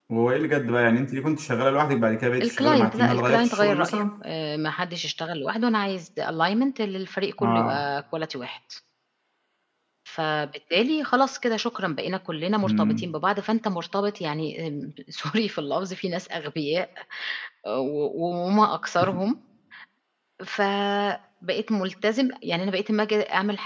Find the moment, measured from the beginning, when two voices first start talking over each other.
2.4 s

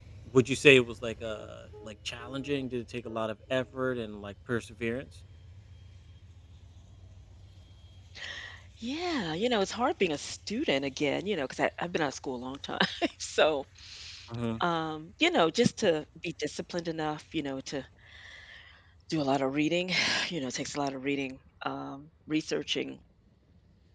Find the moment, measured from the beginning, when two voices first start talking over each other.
none

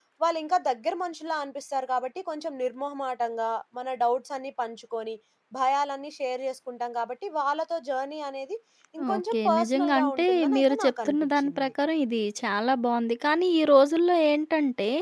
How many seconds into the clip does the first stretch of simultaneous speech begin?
9.2 s

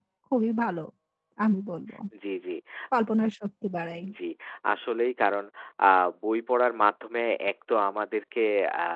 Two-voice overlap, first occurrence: none

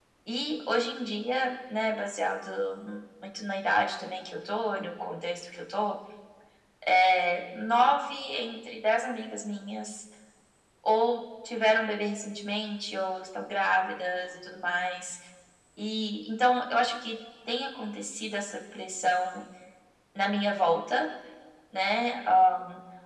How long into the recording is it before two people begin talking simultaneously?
none

